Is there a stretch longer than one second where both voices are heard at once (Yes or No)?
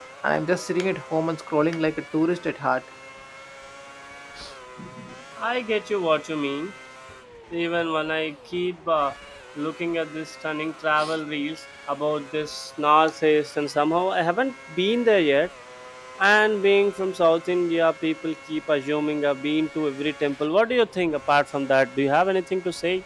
No